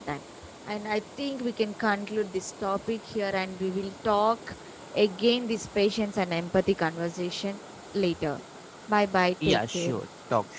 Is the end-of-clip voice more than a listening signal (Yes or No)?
Yes